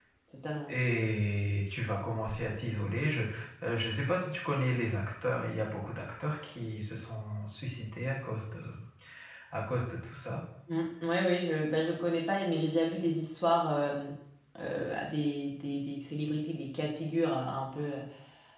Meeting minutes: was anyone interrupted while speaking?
No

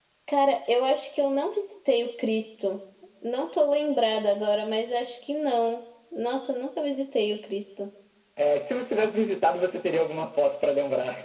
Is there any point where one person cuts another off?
No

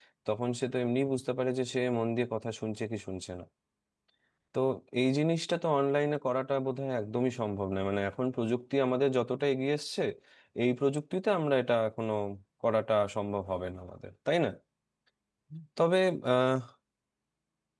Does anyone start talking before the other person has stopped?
No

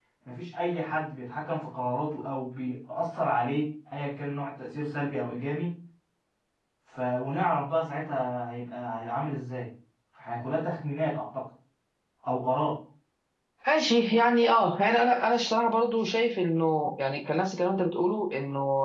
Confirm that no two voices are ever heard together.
Yes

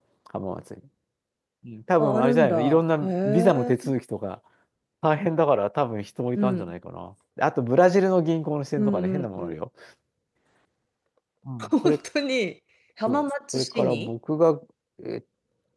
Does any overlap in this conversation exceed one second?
Yes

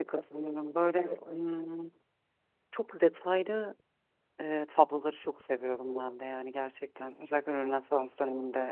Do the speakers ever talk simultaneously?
No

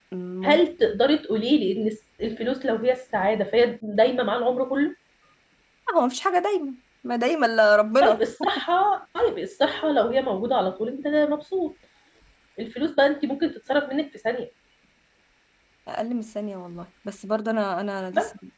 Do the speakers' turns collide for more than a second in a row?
No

